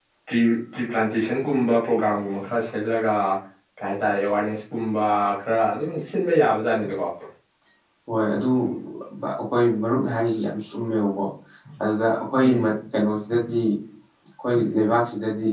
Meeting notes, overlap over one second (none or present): none